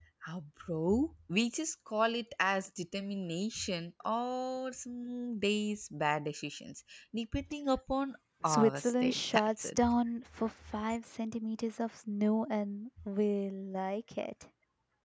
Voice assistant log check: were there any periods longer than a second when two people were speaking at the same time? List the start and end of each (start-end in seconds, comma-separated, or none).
8.4-9.8